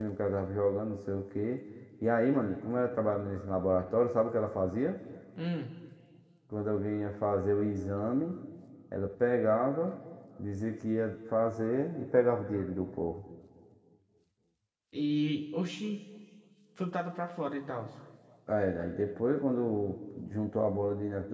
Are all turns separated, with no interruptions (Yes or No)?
Yes